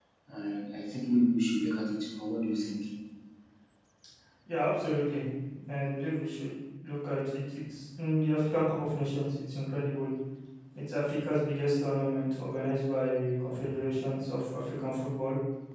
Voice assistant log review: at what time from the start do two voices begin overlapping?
none

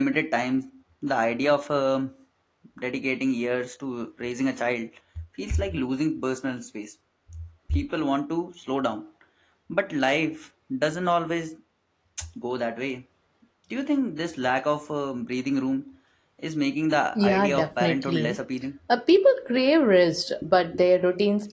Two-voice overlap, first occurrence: 17.2 s

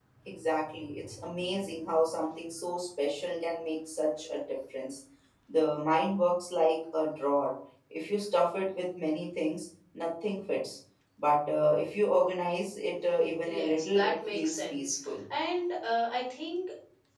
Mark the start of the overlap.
13.4 s

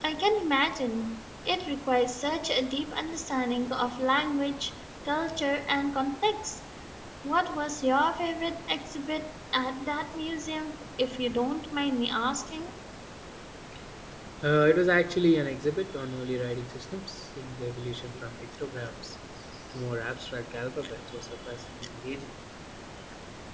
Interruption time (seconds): none

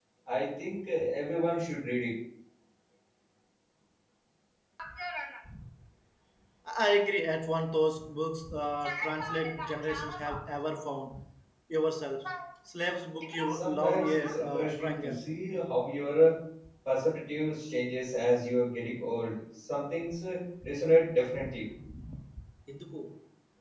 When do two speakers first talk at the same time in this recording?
13.5 s

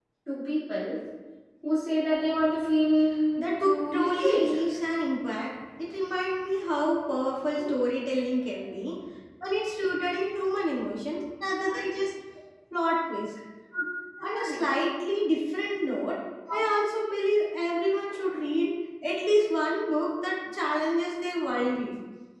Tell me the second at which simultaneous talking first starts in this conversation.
3.4 s

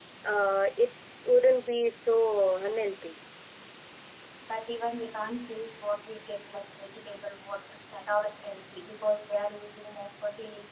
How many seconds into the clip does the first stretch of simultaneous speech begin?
none

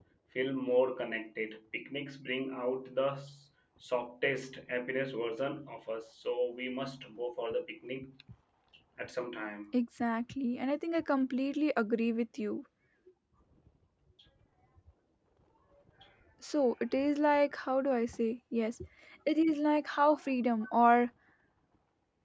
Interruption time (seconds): none

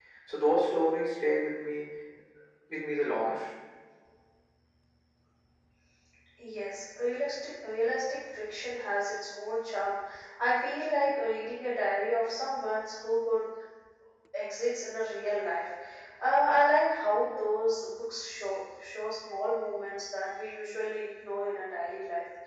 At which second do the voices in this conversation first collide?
none

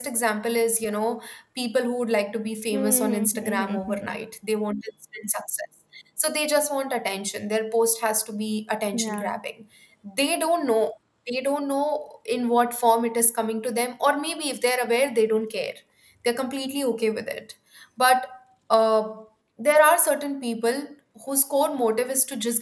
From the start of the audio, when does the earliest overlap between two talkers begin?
2.7 s

